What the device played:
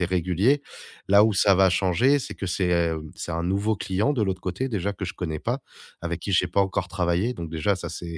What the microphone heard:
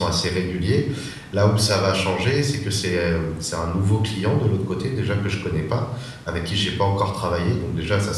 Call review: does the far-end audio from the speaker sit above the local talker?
Yes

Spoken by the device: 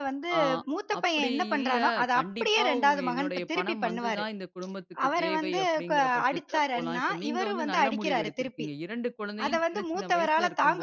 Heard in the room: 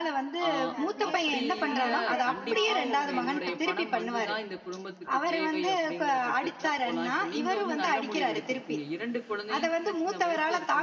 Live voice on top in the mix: No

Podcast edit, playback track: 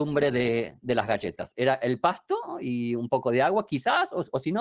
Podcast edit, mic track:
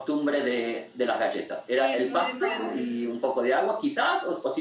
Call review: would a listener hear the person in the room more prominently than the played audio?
No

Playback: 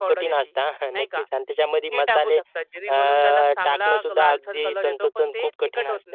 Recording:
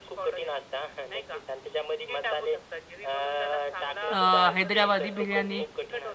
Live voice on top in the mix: Yes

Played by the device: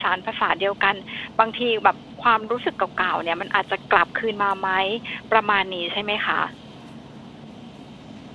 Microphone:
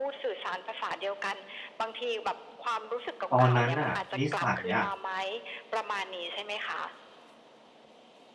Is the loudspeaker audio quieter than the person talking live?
Yes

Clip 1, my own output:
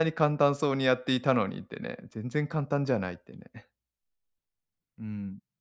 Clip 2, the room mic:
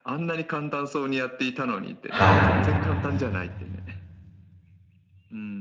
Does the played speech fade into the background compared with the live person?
Yes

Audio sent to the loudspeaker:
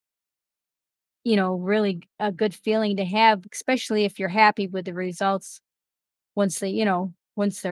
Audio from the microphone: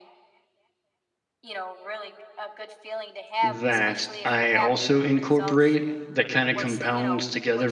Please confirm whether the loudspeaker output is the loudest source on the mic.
No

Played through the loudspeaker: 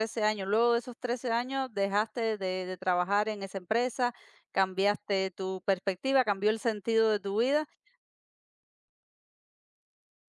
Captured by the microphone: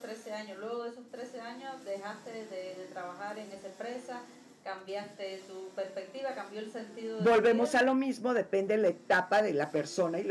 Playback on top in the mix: No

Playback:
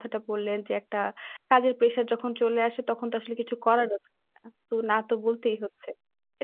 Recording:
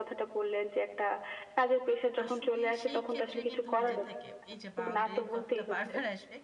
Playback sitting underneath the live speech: No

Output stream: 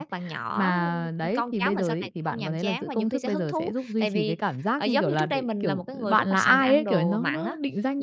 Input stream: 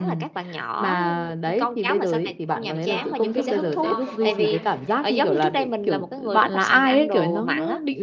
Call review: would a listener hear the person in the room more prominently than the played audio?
No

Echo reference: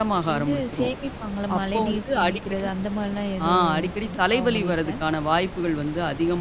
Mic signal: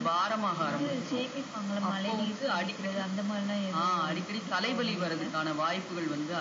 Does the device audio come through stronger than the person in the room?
Yes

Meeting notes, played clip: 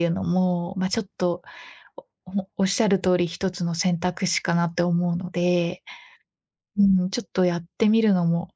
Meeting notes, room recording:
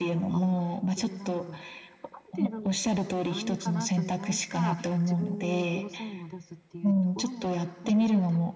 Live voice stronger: No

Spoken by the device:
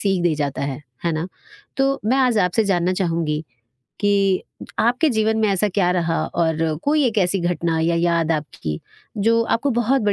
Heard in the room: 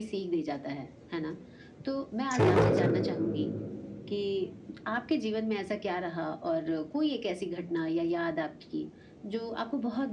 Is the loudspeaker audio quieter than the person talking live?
Yes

